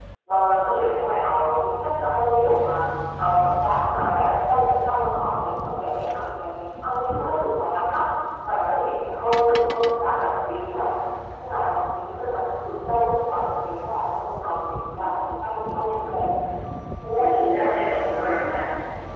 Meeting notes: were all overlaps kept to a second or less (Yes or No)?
No